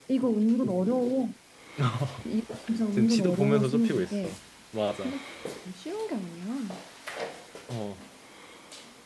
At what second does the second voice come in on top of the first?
2.9 s

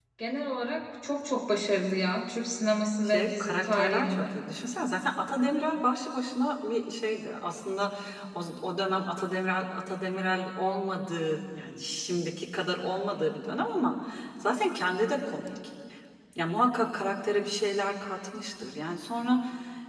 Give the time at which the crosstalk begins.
3.0 s

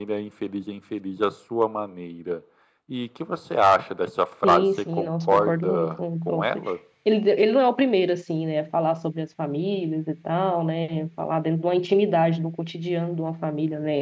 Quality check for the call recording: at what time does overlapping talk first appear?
4.4 s

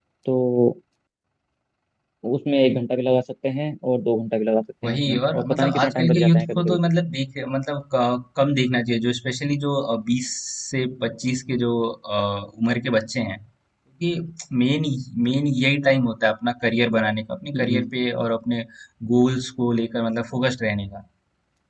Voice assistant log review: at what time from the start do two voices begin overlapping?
4.8 s

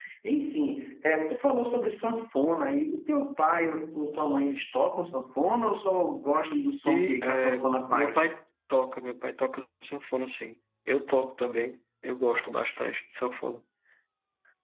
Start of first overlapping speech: 6.9 s

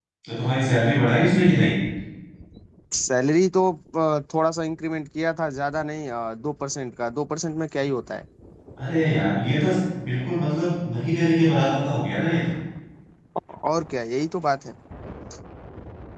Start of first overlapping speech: none

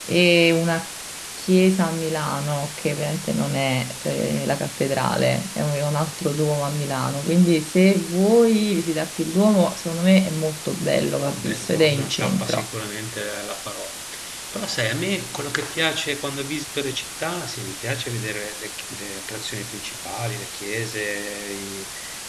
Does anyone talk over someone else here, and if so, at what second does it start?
11.2 s

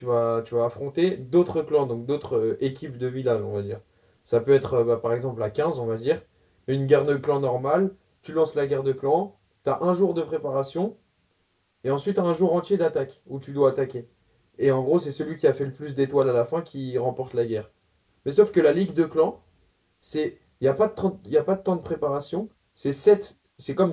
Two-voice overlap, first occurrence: none

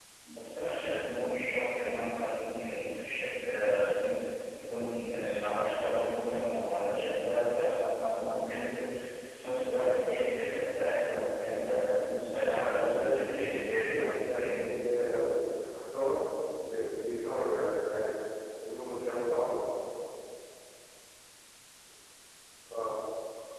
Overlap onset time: 12.5 s

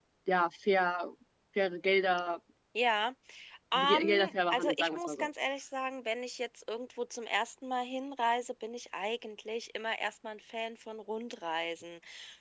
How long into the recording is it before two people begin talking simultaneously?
3.7 s

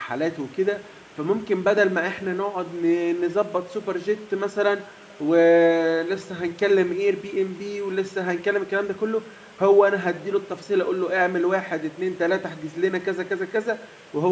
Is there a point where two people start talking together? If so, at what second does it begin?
none

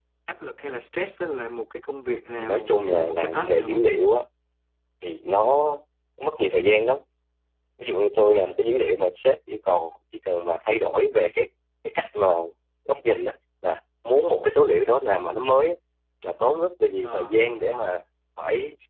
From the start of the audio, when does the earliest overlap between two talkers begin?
2.4 s

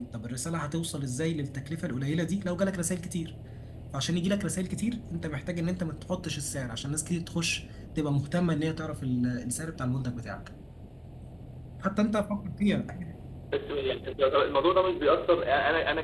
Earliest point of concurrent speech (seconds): none

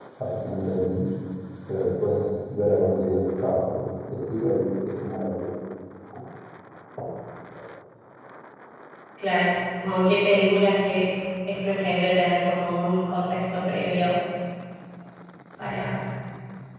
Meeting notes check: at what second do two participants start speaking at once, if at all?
none

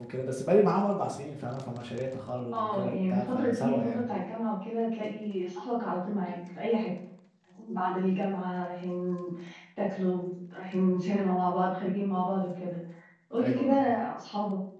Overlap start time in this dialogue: 2.5 s

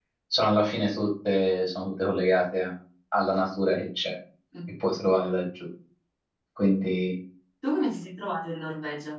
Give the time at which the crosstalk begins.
none

